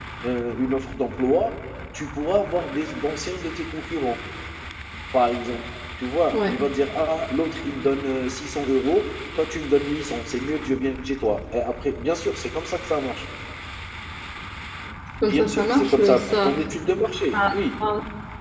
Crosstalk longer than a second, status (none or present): present